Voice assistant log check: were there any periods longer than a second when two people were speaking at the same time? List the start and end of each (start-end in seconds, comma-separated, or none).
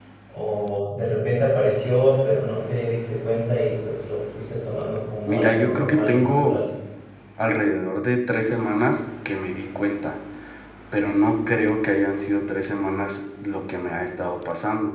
5.2-6.6